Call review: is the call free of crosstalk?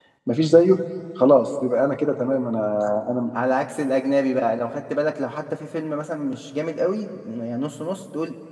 Yes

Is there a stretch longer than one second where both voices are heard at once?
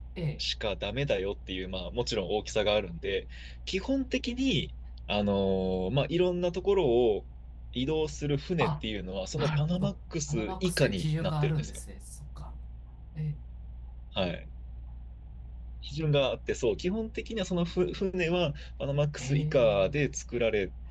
Yes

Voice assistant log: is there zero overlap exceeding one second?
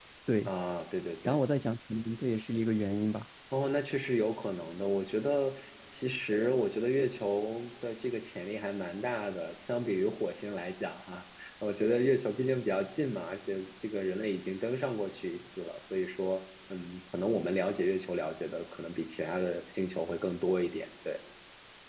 Yes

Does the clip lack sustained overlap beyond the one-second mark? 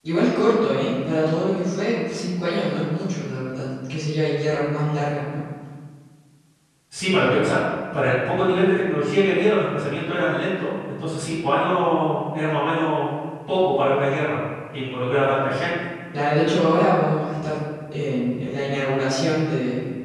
Yes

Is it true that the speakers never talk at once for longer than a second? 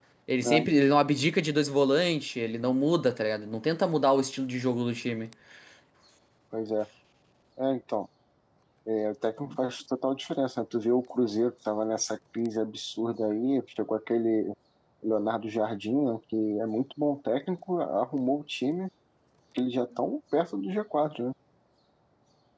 Yes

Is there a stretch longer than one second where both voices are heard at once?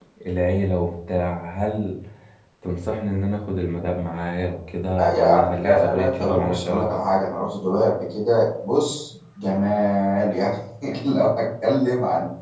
Yes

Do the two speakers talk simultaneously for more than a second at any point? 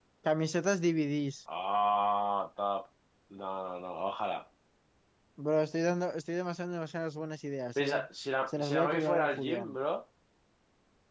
Yes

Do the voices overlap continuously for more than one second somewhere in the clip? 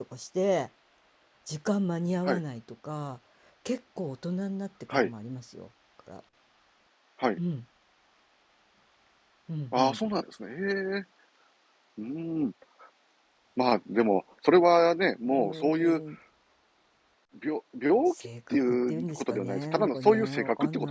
Yes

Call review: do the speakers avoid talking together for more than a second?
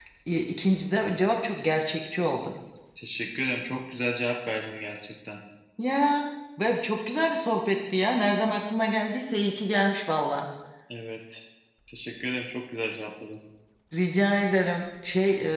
Yes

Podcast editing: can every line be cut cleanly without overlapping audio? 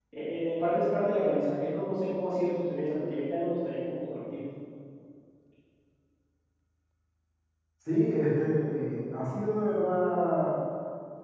Yes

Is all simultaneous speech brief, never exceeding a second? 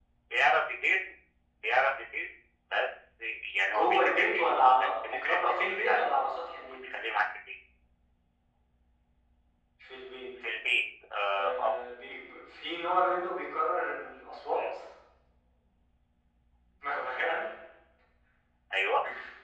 No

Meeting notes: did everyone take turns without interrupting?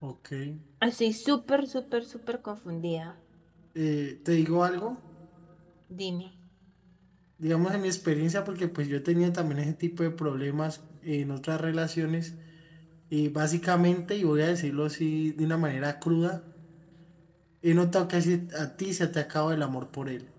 Yes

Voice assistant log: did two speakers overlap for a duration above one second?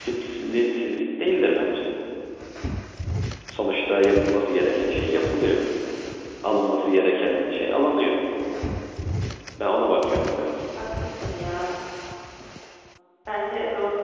No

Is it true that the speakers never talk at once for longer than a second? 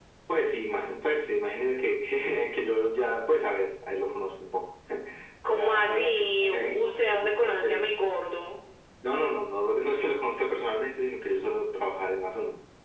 No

